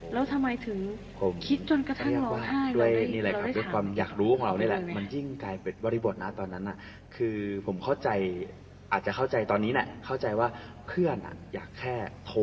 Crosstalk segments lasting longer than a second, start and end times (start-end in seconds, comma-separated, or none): 2.0-5.0